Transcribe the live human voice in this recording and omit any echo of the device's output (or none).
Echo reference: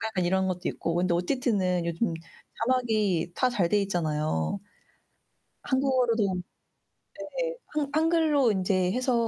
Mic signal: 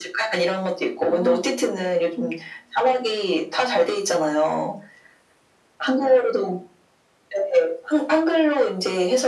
어.